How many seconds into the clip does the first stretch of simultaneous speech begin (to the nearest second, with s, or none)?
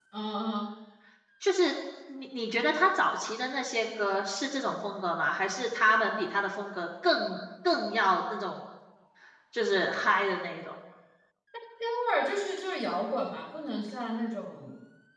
none